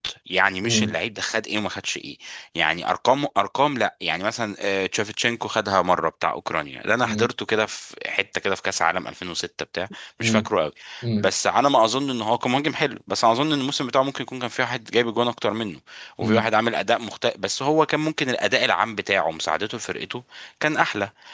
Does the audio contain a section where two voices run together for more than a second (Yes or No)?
No